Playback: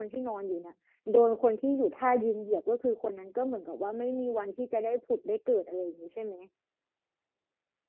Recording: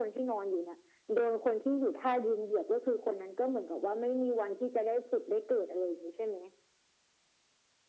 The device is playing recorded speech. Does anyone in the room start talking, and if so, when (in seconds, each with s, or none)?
none